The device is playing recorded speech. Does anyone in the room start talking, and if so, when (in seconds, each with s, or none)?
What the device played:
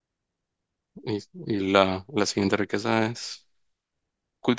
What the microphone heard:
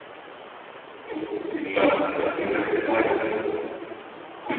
2.6 s